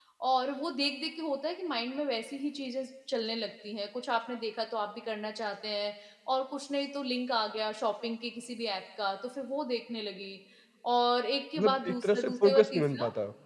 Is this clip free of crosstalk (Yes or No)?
No